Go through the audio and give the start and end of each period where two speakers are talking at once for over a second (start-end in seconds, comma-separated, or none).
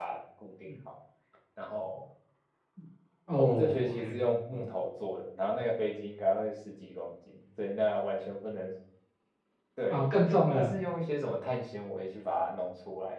3.4-4.6